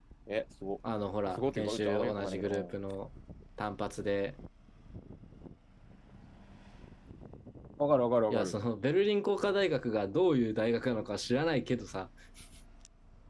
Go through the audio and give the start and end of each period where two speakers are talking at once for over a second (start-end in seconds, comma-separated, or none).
1.4-2.7